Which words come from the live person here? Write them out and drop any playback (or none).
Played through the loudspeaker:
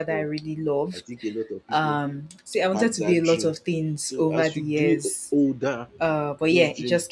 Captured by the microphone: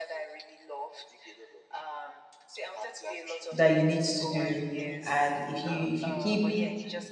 that you need to do. And if you if you keep